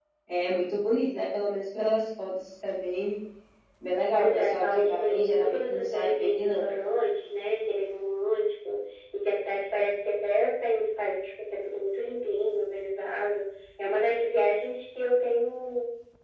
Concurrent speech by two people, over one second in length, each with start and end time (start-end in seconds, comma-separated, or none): 4.2-6.7